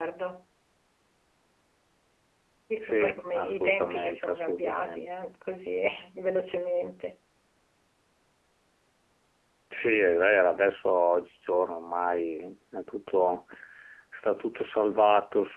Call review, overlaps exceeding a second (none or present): present